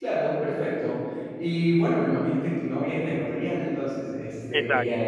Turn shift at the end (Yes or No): No